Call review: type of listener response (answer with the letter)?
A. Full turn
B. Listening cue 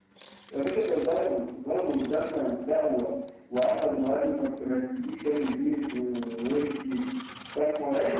A